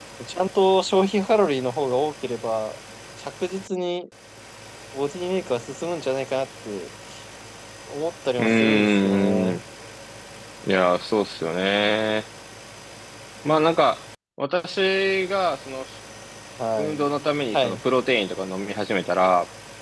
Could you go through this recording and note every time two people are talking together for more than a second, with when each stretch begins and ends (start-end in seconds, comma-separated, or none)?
8.4-9.6